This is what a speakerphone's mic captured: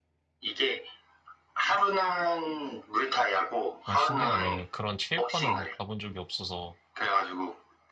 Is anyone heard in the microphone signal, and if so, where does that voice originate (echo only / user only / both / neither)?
both